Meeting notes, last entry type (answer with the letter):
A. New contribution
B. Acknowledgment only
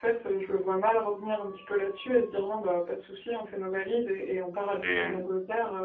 B